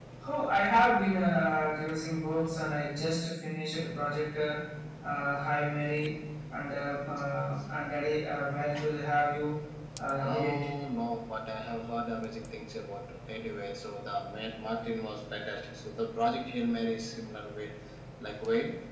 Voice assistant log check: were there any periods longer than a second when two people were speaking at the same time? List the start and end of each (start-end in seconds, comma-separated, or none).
none